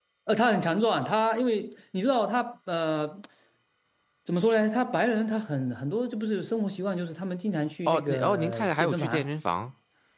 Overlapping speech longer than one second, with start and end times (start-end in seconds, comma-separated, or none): 7.9-9.3